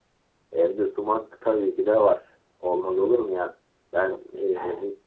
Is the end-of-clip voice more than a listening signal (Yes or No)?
No